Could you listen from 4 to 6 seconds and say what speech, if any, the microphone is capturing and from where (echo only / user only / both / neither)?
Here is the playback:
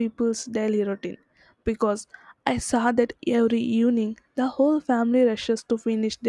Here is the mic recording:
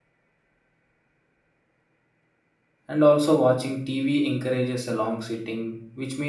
user only